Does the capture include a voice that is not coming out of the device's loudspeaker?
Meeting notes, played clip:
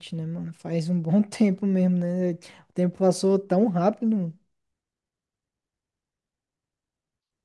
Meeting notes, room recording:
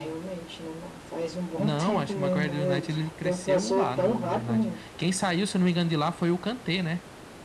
Yes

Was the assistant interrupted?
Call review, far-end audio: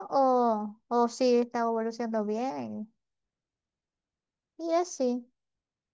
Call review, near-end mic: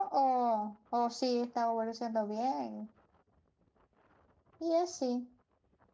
No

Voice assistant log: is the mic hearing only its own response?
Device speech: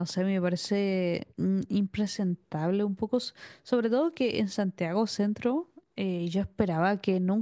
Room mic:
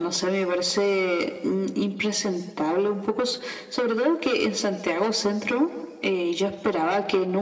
Yes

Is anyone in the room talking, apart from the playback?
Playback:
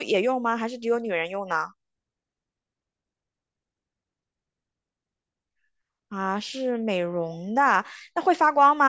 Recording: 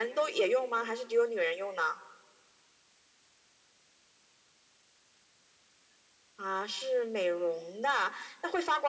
No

